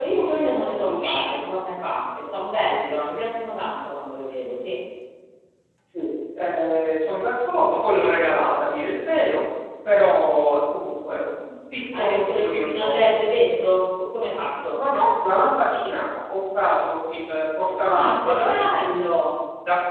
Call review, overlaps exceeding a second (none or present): present